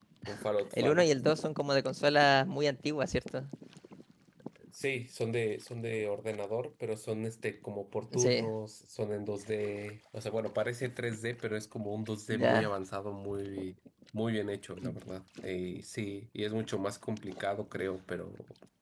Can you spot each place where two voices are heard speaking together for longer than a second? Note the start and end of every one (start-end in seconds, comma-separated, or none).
none